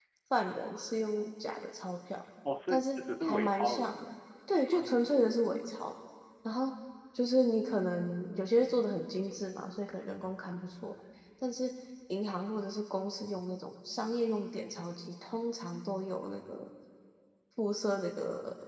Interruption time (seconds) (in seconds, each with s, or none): 2.7 s